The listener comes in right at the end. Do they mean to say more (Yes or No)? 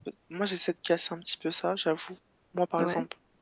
No